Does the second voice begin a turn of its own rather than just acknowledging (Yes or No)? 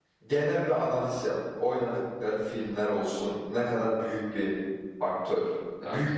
Yes